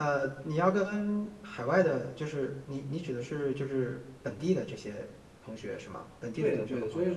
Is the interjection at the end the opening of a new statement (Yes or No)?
Yes